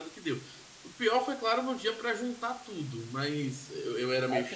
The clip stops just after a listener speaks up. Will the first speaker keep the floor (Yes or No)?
No